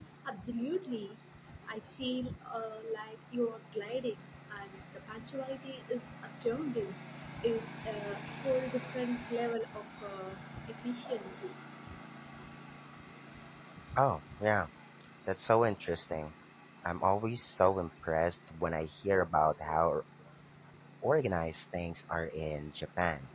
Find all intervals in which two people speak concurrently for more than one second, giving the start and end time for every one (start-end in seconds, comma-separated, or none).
none